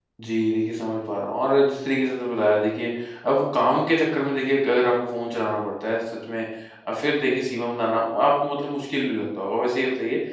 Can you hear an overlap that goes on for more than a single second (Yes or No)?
No